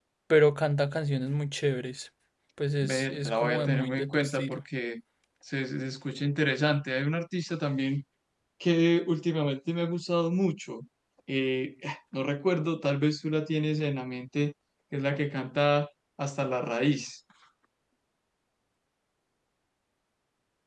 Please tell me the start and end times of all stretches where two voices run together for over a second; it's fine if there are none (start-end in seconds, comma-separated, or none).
2.8-4.6